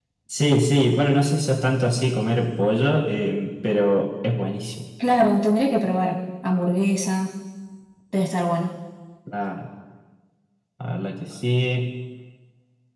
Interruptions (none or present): none